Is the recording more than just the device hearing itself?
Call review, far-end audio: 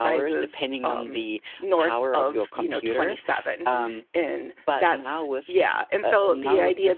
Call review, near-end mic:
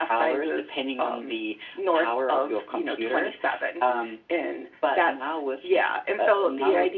No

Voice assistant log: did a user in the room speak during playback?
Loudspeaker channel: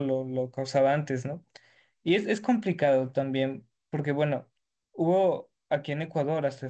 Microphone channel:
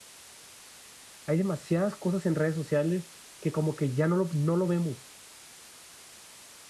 Yes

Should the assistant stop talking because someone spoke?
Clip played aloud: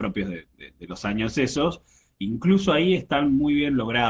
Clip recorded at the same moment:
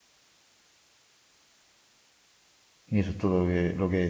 Yes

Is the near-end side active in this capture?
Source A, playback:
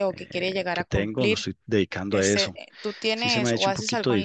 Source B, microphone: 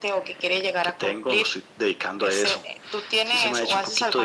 No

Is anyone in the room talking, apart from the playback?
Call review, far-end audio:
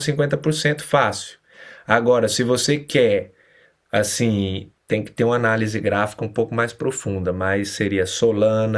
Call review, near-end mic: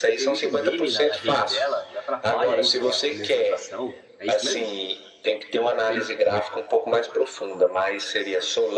Yes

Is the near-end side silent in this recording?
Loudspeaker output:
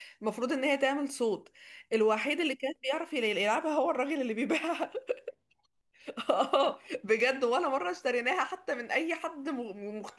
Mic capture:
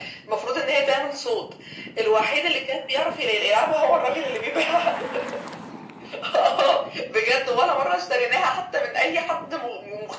Yes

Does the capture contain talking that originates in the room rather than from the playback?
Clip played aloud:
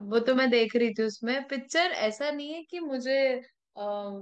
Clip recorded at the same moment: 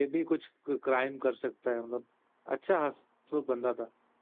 Yes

